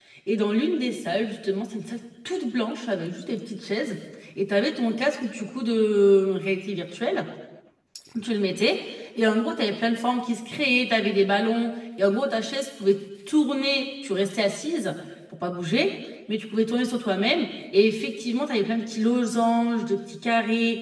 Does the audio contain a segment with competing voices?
No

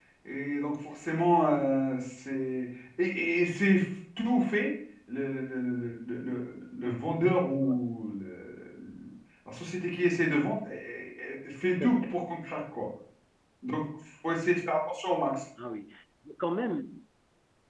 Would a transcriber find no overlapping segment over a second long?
Yes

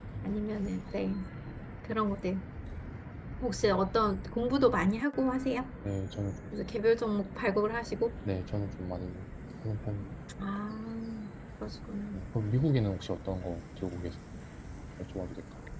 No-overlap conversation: Yes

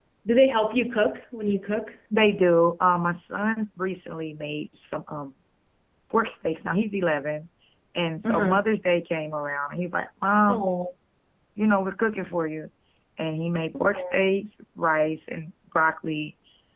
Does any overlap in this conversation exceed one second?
No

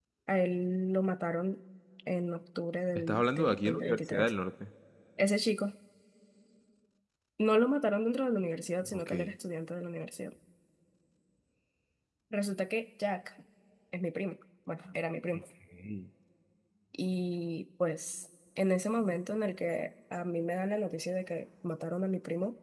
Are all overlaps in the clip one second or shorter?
No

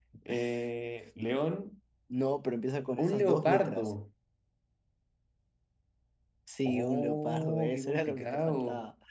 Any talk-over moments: Yes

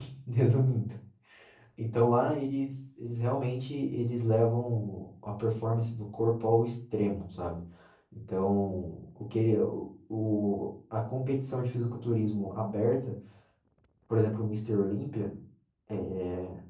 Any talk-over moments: No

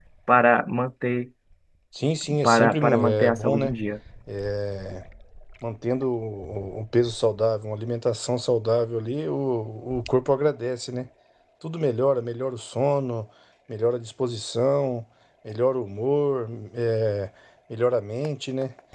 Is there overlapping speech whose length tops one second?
Yes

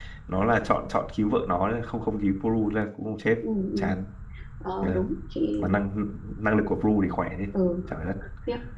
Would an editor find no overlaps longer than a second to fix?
Yes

